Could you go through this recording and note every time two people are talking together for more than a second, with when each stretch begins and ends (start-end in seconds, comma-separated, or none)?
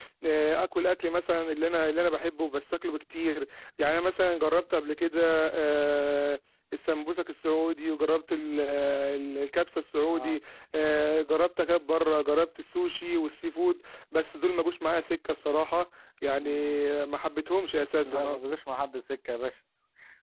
none